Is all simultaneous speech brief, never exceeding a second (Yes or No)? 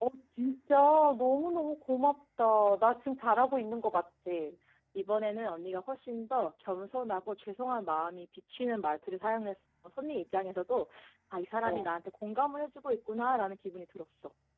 Yes